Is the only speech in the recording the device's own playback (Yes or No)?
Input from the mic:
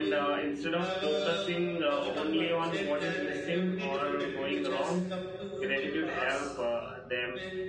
No